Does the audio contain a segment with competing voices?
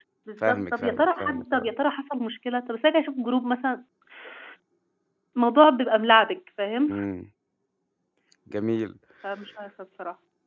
Yes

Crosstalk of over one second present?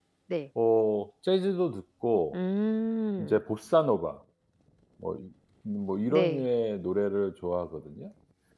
No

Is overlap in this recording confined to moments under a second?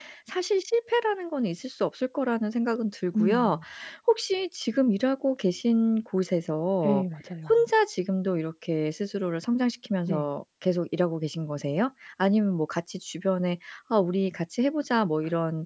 Yes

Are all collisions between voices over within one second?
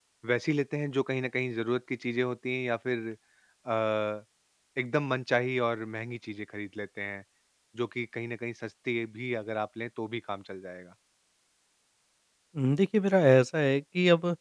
Yes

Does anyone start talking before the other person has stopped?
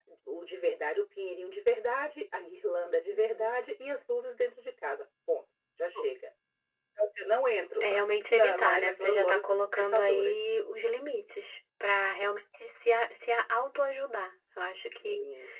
Yes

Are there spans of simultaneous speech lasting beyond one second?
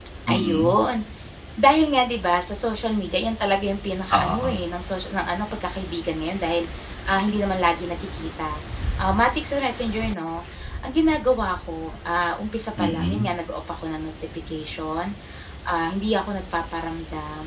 No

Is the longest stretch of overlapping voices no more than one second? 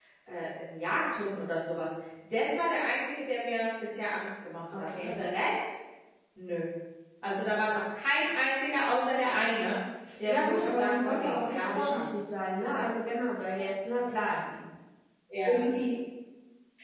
No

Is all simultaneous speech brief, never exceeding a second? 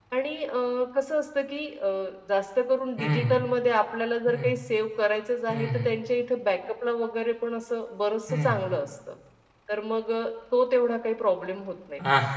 Yes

